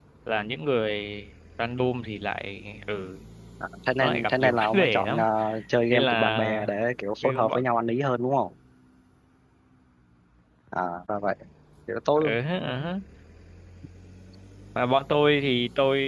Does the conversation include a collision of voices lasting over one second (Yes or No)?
Yes